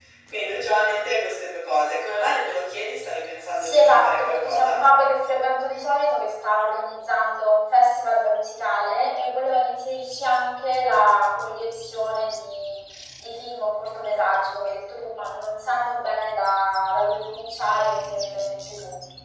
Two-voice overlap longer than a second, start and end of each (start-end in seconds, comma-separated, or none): 3.6-4.8